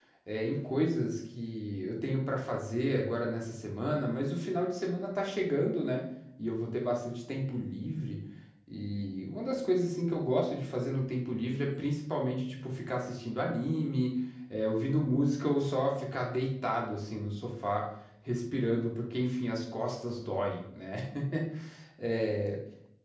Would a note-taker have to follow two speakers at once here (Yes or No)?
No